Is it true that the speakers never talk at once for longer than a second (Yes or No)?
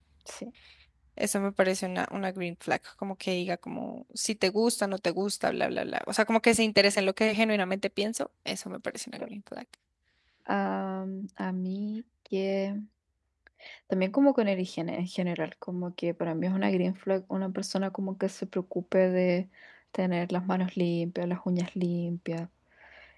Yes